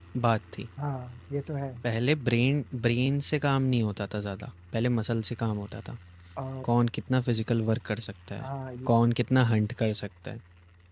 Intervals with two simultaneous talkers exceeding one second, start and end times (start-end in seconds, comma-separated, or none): none